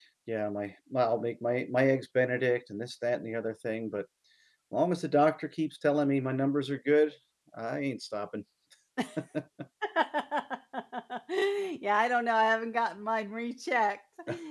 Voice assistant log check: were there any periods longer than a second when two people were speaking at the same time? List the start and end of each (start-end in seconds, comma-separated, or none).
none